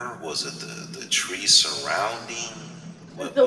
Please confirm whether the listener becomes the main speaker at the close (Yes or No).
Yes